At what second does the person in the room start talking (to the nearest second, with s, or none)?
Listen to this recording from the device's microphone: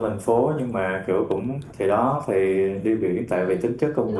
3 s